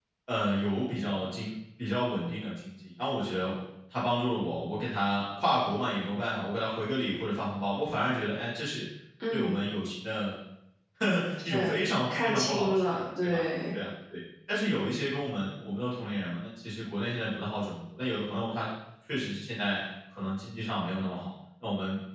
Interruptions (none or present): present